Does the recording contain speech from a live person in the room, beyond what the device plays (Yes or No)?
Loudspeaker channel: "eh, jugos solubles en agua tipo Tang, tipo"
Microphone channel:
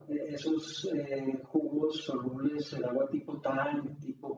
No